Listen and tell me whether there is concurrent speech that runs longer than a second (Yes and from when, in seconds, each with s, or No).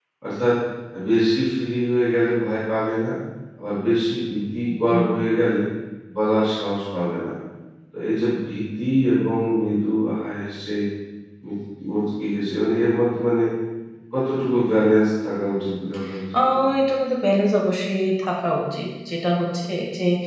No